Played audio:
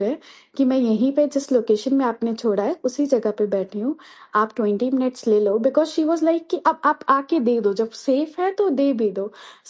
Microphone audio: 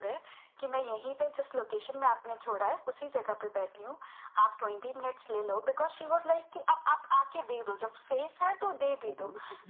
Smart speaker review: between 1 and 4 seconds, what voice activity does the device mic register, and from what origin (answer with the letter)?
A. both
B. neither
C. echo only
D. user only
C